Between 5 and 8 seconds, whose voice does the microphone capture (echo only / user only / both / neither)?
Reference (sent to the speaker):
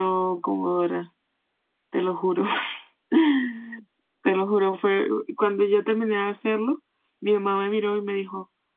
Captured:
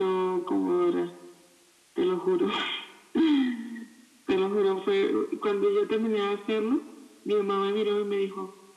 echo only